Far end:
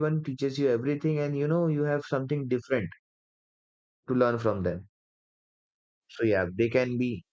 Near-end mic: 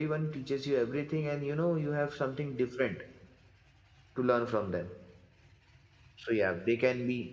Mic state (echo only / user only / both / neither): echo only